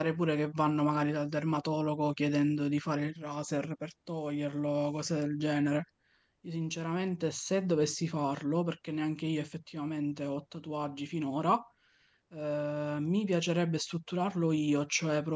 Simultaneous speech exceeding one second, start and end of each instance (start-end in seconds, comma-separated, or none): none